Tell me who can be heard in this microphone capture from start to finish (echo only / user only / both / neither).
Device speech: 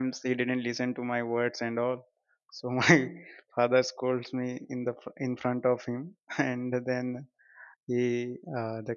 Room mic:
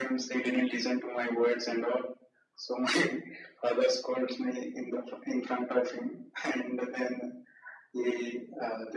echo only